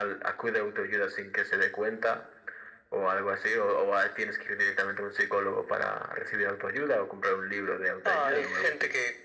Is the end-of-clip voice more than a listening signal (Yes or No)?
Yes